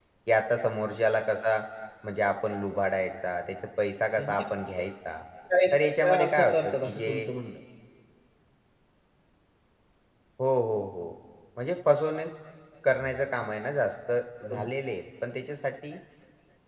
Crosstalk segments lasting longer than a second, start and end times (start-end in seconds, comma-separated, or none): 5.7-7.3